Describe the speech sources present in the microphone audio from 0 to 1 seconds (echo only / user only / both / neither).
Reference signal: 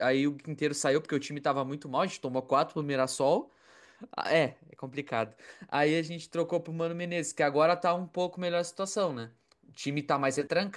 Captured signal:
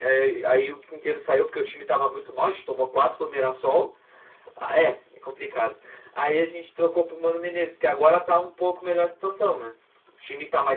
echo only